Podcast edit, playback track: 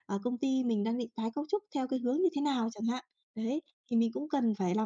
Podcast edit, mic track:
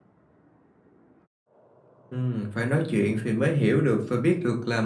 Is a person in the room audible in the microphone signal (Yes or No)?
Yes